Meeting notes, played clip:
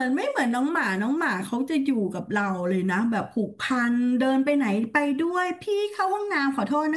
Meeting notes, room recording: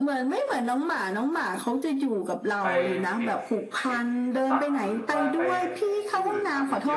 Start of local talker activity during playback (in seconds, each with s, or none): 2.6 s